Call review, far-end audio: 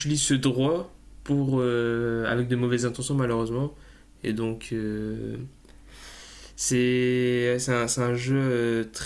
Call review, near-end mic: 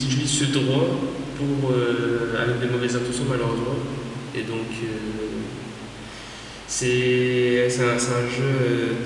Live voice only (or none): none